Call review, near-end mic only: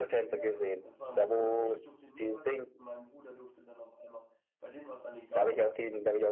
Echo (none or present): present